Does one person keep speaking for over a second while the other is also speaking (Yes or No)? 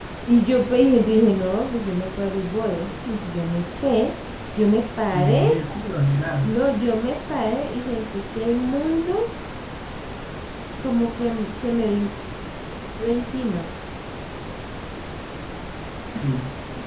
No